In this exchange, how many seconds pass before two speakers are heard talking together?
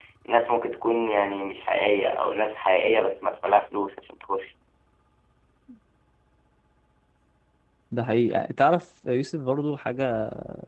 none

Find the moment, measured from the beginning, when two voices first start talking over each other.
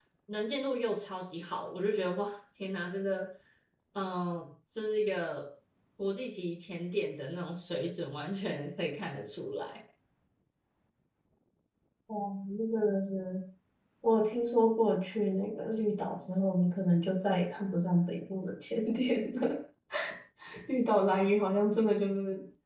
none

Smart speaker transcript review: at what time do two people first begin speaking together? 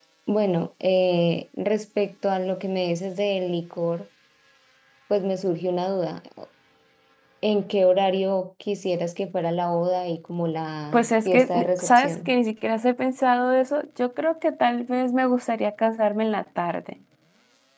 10.9 s

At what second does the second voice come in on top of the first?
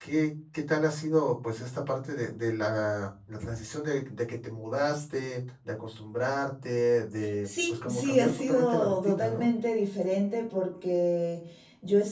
7.5 s

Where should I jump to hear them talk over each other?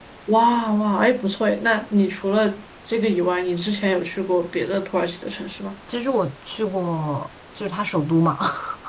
none

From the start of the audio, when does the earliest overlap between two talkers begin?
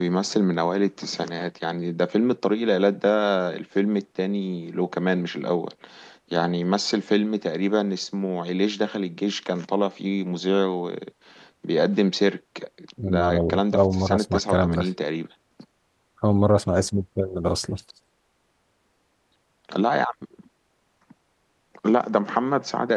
13.0 s

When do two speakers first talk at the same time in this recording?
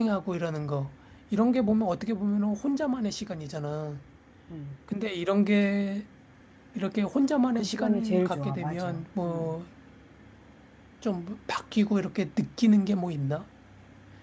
7.5 s

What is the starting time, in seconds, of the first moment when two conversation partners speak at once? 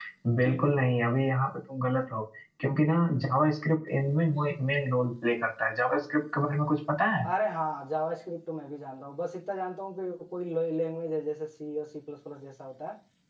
none

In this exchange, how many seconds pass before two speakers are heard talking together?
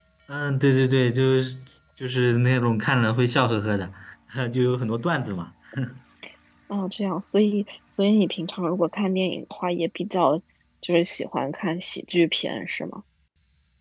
none

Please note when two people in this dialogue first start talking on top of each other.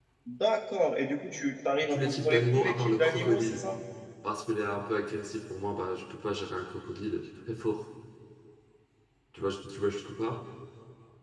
1.8 s

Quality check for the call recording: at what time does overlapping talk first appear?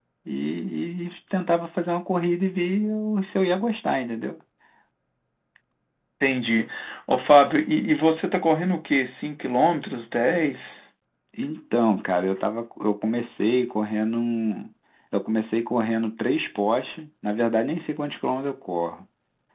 none

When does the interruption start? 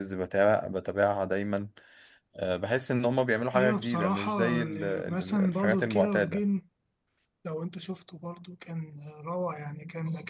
3.5 s

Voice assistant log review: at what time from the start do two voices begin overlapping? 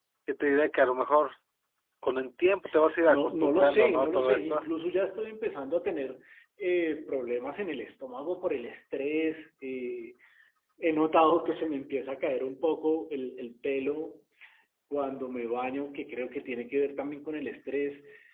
2.9 s

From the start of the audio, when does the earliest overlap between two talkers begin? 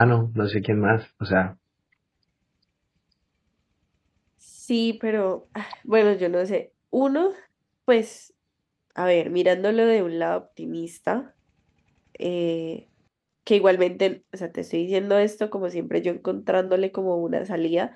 none

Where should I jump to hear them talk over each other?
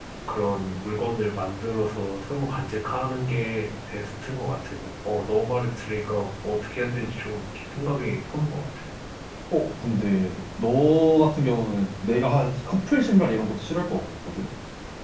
none

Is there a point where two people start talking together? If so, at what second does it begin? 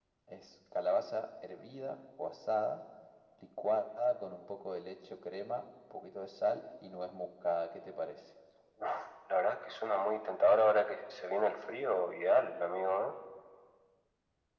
none

